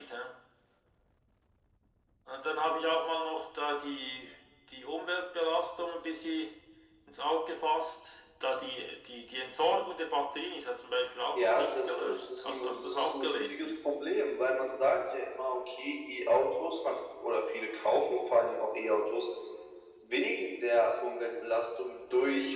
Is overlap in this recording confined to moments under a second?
No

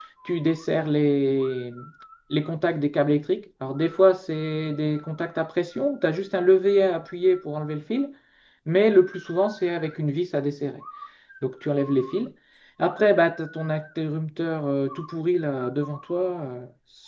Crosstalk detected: No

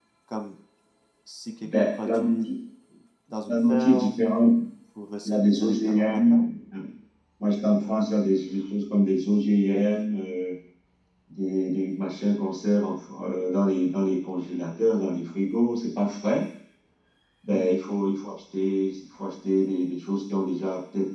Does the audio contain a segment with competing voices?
Yes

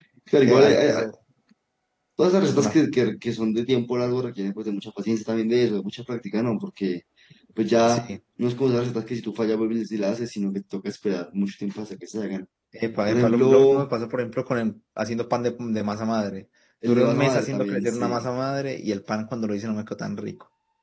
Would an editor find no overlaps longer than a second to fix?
No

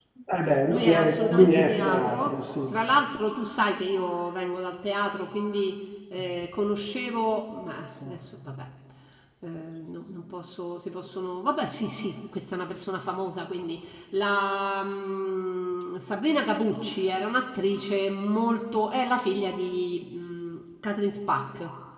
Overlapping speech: Yes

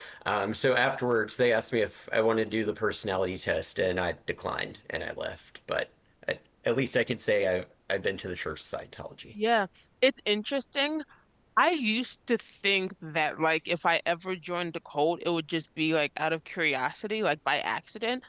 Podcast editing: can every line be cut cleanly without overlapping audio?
Yes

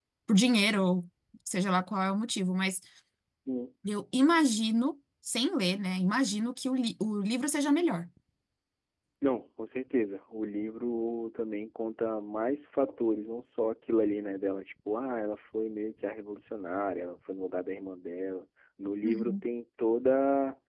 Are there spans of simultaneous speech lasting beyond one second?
No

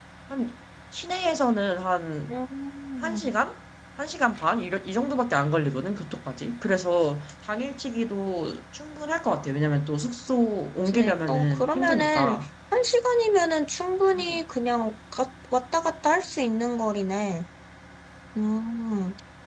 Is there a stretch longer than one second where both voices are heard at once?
Yes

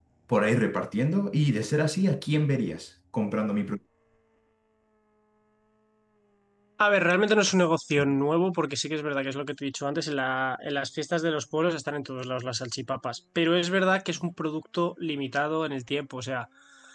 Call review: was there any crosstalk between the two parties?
No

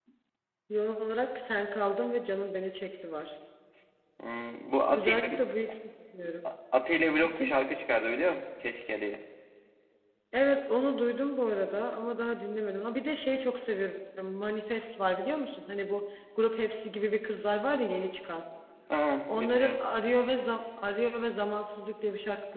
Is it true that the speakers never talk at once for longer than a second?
Yes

